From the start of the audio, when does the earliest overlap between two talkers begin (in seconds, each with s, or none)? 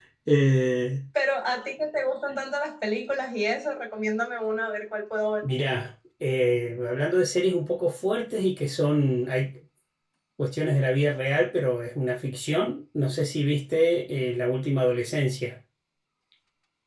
none